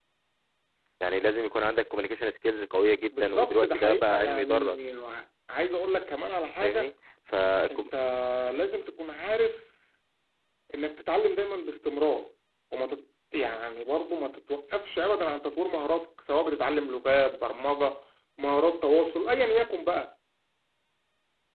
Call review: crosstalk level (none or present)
present